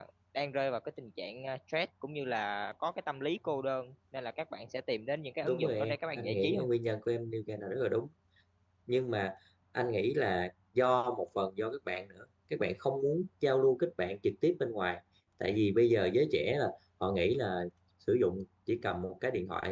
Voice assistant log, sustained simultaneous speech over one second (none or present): present